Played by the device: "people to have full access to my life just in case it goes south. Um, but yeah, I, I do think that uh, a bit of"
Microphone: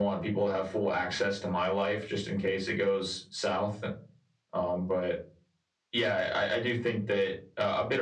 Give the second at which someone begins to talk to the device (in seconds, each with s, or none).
none